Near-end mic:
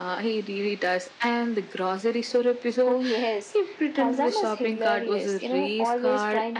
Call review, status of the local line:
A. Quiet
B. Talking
A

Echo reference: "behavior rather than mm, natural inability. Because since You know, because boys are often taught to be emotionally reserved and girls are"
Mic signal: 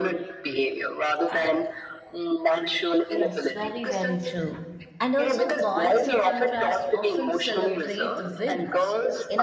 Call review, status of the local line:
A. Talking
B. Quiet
A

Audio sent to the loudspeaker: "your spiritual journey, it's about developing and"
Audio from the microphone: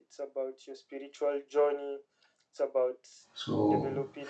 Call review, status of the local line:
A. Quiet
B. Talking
B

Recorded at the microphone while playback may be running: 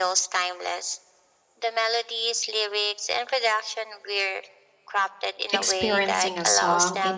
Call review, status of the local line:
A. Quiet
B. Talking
B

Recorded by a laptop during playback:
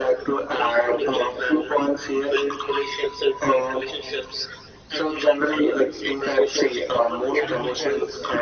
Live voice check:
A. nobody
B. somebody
B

